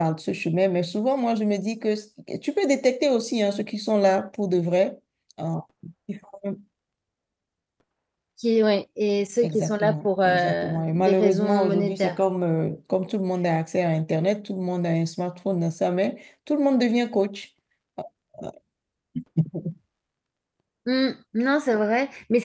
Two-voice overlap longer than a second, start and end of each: 9.4-12.2

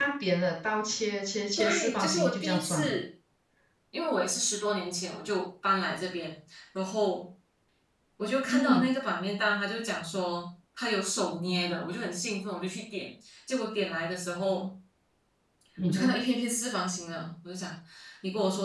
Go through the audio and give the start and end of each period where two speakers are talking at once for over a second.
1.6-2.9

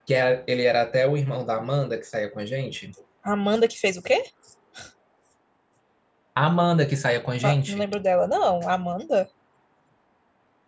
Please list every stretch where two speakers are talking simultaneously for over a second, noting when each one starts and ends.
none

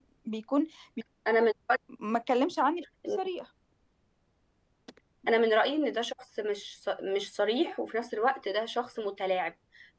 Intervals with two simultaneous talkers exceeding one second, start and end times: none

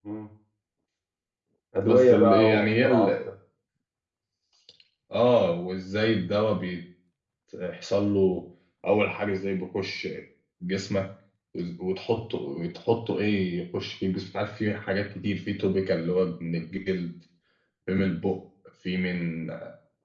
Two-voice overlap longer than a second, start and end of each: 1.8-3.1

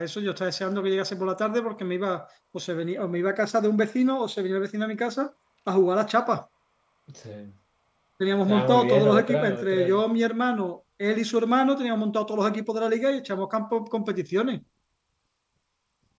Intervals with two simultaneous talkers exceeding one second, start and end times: 8.5-9.9

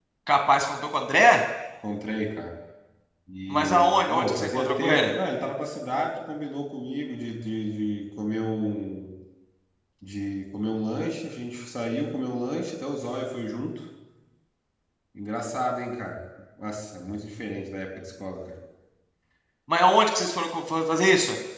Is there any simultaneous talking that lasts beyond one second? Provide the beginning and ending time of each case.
3.5-5.1

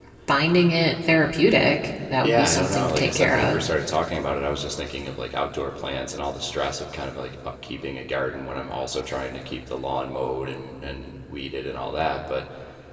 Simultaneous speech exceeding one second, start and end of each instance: 2.2-3.6

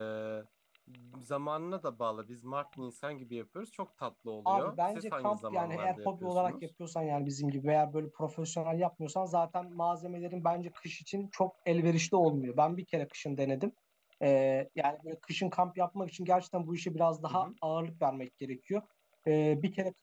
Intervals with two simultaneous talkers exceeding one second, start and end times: 4.4-6.5

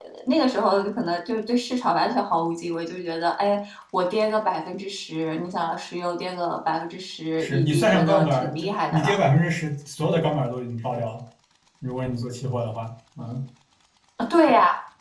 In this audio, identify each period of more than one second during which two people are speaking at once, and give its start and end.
7.4-9.2

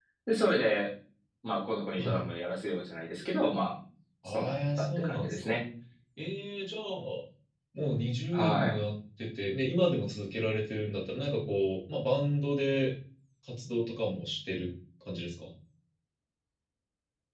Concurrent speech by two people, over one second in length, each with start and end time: 4.3-5.6

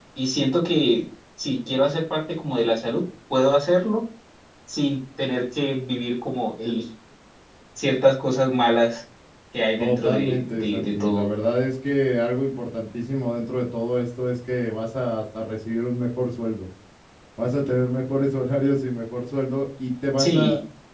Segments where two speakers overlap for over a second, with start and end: 9.8-11.3

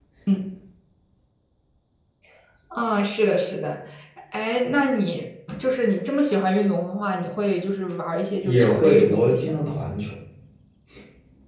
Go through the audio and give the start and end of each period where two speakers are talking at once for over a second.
8.4-9.7

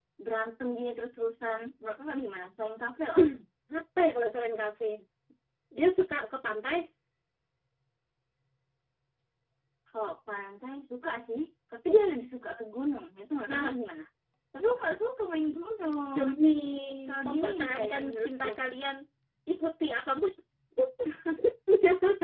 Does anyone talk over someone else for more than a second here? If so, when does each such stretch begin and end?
17.3-18.5

